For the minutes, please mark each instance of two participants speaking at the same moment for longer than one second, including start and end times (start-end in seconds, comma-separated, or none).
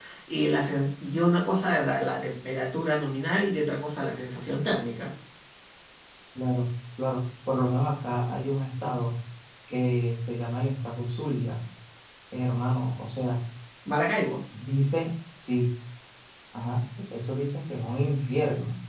none